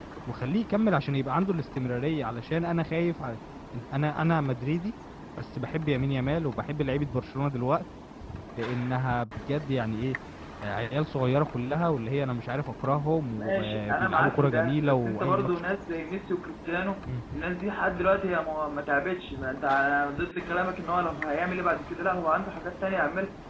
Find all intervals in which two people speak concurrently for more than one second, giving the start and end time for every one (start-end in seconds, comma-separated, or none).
13.4-15.5